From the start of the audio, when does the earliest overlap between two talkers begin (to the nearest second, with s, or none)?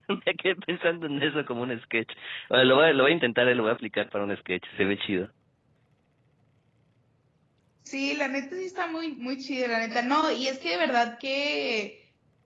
none